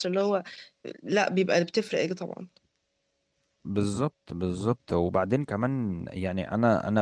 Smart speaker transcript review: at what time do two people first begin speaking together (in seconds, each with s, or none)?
none